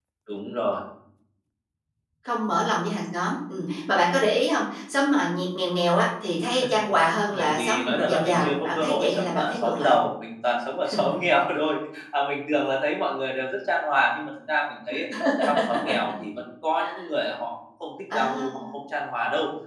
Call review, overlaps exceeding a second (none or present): present